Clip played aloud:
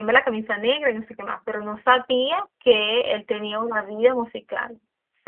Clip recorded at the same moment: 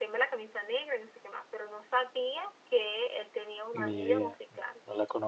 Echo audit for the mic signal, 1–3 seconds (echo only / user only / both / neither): echo only